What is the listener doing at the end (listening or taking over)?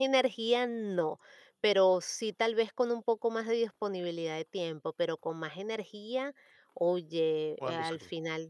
listening